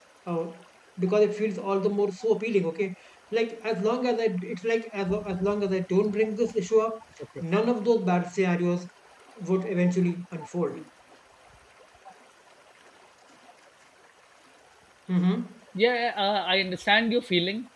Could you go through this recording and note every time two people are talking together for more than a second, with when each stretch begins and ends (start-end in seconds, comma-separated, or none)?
none